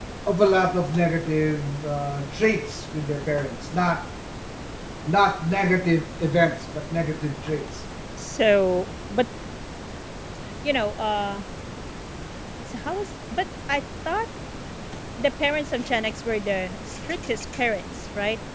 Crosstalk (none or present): none